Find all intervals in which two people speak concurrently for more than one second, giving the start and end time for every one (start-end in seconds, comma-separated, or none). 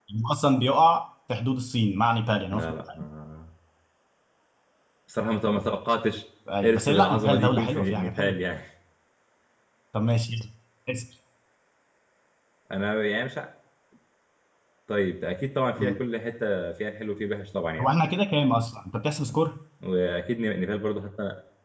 6.6-8.4